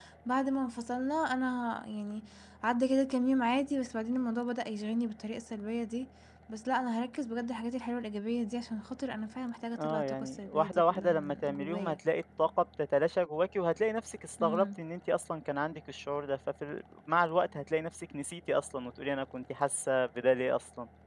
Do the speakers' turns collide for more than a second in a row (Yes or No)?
Yes